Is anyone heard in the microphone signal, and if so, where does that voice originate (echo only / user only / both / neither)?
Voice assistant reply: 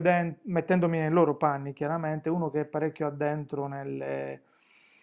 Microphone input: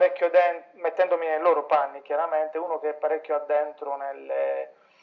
echo only